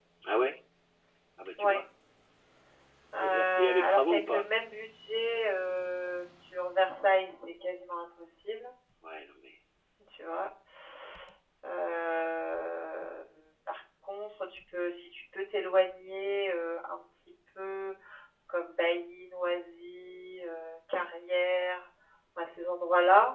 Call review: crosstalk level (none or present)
present